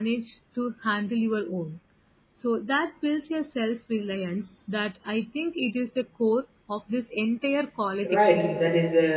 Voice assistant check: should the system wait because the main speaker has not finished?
No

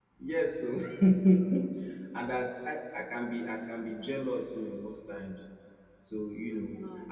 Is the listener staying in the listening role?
Yes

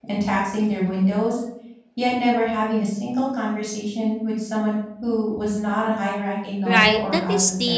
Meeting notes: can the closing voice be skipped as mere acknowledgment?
No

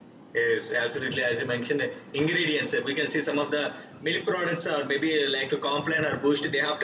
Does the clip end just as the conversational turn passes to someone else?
No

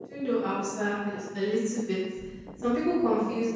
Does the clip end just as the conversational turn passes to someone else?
No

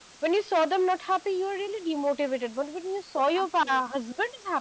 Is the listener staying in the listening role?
Yes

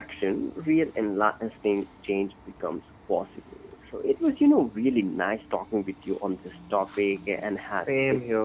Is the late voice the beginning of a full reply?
Yes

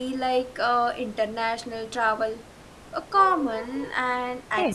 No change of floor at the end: No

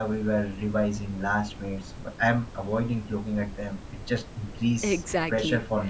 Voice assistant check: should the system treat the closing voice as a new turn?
Yes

